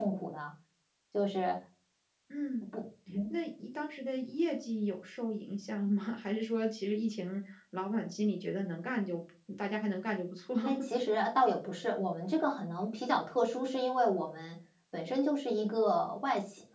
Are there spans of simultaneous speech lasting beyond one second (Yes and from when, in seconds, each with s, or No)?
No